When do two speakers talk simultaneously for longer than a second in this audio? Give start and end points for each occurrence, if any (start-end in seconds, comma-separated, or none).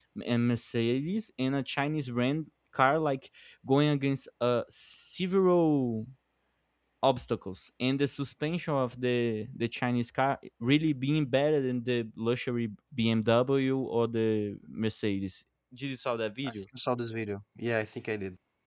none